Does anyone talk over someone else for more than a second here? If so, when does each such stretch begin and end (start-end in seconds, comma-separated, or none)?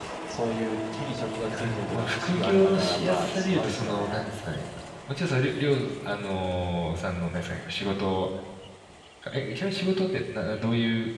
1.5-4.3